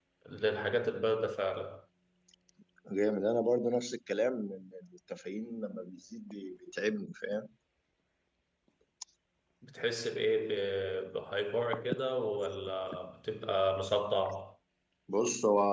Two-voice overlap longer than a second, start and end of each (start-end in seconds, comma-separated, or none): none